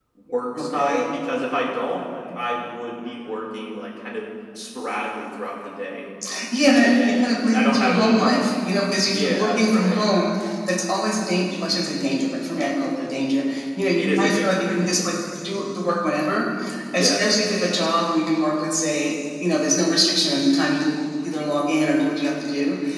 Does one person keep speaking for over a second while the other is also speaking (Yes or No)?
Yes